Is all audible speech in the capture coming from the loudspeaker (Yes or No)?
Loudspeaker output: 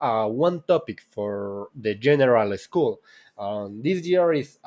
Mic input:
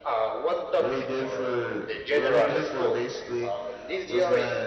No